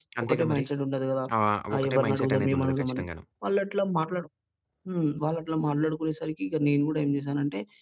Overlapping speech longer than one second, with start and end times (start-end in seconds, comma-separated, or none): 1.7-3.0